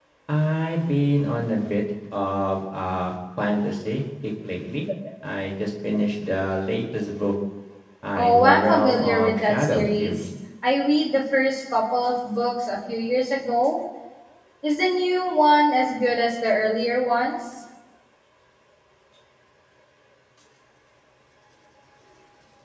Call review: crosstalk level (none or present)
present